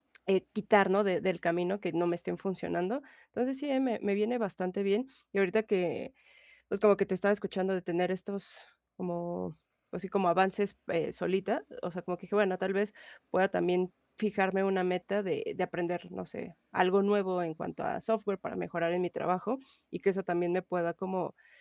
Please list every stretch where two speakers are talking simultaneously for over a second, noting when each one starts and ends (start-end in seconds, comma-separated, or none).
none